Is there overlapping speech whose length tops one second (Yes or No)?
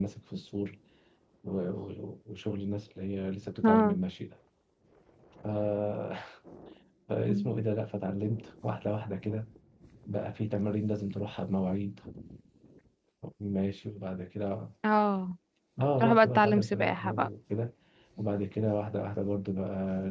Yes